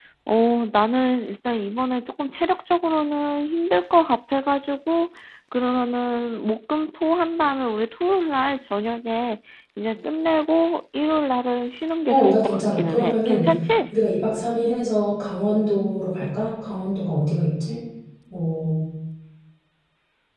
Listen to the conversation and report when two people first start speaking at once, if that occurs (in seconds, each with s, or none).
12.1 s